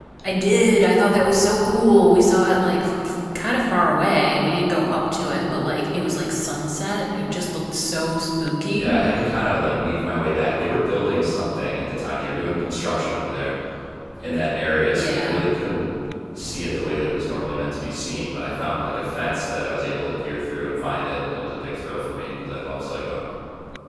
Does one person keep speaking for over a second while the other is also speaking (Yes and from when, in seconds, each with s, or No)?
No